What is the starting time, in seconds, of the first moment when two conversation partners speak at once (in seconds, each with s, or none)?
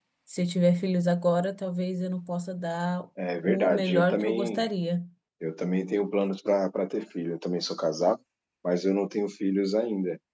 3.4 s